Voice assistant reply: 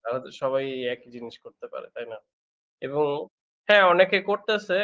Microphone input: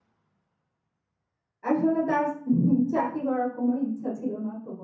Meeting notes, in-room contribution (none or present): present